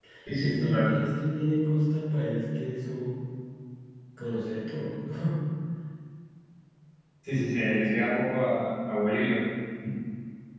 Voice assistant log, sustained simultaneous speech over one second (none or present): none